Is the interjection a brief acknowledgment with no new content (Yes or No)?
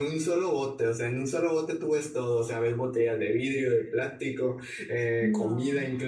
Yes